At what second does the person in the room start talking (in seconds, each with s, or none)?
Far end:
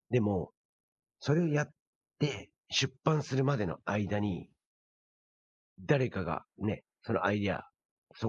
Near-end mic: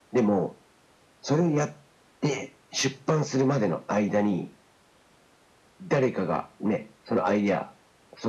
none